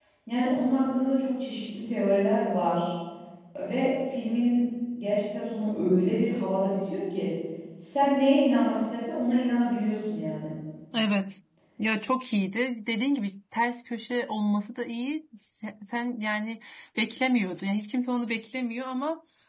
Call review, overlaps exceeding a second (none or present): none